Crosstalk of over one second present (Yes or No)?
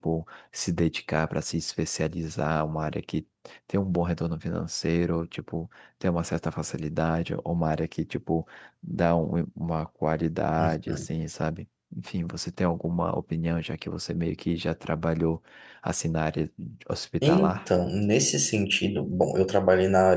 No